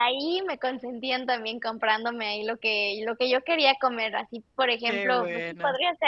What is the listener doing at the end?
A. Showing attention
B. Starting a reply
A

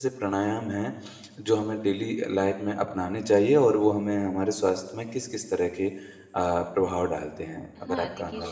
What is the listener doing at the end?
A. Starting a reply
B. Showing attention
A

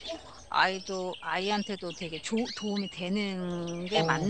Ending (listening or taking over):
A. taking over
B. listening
A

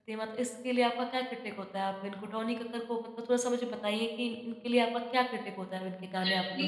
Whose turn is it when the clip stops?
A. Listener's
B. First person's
A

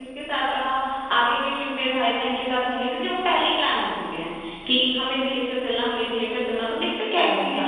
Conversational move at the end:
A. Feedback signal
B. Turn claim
B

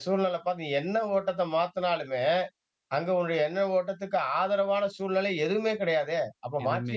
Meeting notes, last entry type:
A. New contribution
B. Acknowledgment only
B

